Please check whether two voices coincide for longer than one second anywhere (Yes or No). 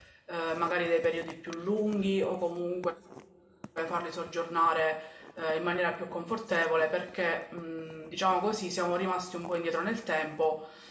No